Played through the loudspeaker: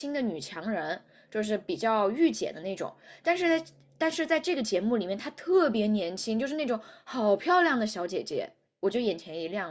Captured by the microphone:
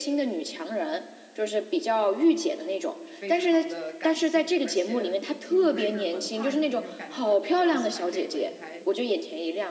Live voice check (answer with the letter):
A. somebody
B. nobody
A